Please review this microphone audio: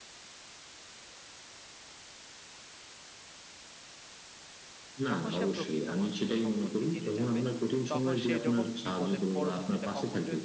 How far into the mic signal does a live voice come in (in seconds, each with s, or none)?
5.1 s